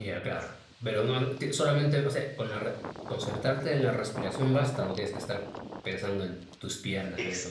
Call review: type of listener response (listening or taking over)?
taking over